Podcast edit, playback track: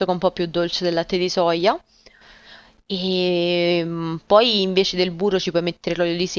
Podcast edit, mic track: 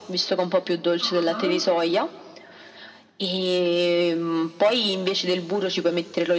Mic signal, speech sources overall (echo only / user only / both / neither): both